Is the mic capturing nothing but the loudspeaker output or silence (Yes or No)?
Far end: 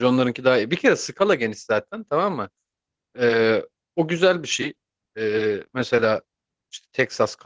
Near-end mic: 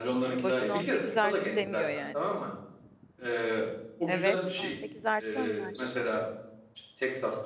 No